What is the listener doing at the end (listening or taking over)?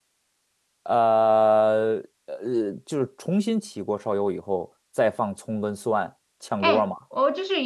taking over